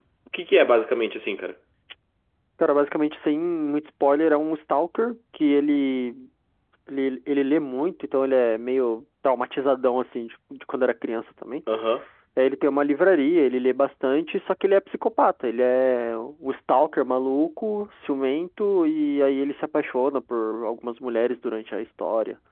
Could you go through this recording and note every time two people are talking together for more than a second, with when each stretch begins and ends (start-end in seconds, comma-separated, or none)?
none